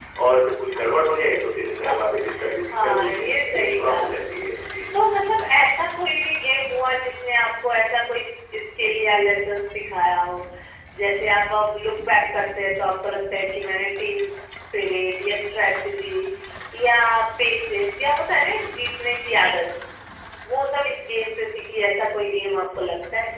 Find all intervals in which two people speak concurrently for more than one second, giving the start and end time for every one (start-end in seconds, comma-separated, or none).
2.7-4.4